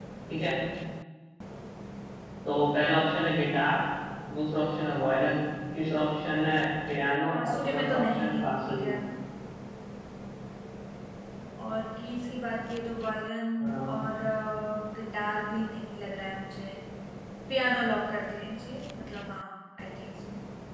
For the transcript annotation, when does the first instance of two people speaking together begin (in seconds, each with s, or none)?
7.3 s